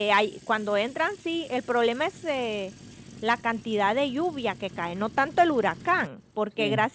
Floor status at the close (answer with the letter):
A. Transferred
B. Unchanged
B